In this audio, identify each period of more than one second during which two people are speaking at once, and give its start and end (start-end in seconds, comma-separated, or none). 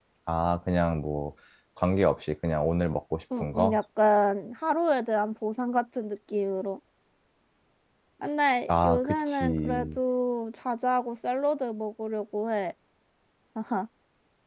8.7-10.0